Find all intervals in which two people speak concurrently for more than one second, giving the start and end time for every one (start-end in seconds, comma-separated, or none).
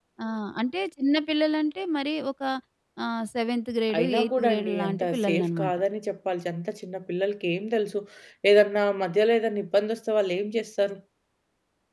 4.0-5.8